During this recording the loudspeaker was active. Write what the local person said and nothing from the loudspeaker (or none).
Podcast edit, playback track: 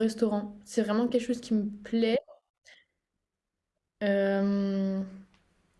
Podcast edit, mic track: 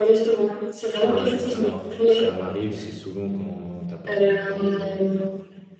Ouais, alors ça m'arrive, c'est souvent quand t'as pas trop le temps de,